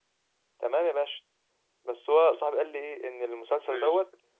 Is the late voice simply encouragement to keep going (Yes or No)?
Yes